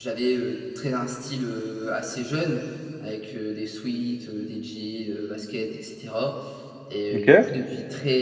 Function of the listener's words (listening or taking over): listening